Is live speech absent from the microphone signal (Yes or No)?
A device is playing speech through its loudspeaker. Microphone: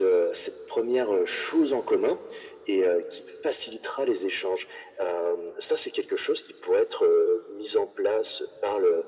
Yes